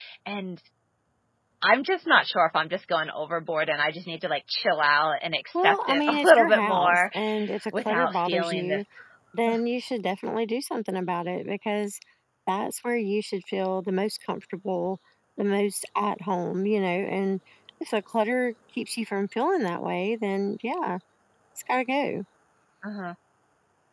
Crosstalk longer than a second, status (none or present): present